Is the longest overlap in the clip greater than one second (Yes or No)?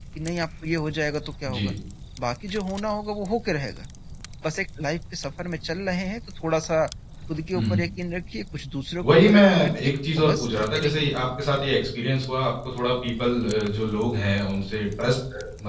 Yes